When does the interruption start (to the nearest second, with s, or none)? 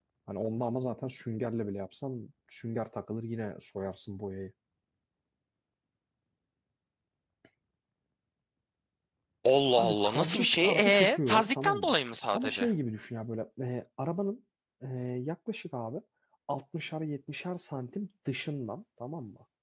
10 s